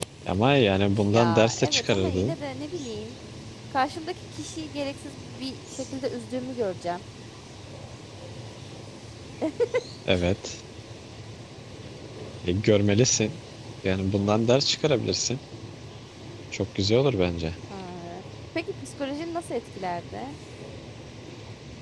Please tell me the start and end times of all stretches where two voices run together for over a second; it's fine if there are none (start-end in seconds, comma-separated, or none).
1.1-2.4